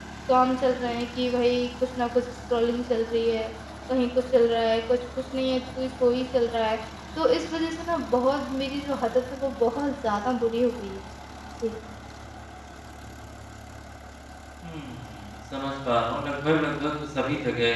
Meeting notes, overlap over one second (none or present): none